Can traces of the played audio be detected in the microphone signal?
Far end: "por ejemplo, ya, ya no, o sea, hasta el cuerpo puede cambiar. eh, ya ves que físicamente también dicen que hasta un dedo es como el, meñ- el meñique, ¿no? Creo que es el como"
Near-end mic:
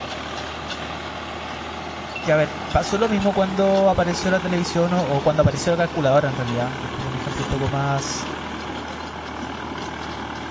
No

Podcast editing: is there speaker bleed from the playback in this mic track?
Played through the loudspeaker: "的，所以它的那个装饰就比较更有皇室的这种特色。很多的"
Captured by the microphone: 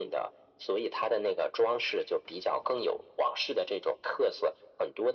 Yes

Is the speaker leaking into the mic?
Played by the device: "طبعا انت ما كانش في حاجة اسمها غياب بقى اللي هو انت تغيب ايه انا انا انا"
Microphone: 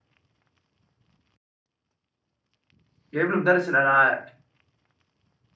No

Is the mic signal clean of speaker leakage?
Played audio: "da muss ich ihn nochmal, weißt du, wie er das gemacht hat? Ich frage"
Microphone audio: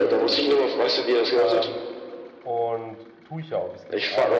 No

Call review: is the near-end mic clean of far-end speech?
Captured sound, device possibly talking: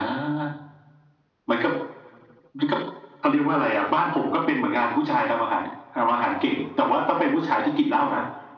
No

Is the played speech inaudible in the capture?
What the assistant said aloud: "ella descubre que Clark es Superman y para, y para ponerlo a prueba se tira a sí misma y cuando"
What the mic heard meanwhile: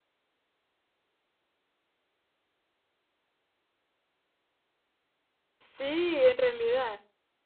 Yes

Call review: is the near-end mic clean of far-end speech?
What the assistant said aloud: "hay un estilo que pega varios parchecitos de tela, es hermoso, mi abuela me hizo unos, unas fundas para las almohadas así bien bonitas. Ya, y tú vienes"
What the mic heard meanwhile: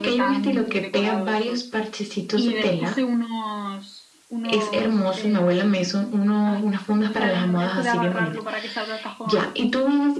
No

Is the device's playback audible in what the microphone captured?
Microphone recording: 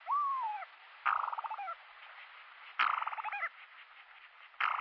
No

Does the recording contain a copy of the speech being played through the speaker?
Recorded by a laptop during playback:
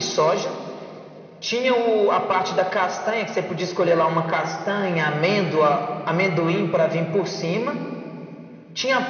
Yes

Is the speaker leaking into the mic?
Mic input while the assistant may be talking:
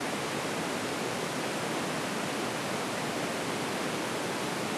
No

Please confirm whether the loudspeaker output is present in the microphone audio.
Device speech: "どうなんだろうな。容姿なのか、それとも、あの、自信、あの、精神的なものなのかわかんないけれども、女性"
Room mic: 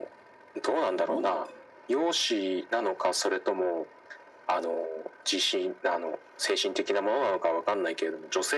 Yes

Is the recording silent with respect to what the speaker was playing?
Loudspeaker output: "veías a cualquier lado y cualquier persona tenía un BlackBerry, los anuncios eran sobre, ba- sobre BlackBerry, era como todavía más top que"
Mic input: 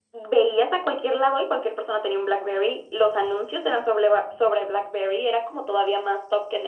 No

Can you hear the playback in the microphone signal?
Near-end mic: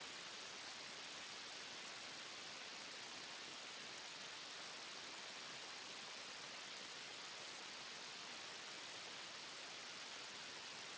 No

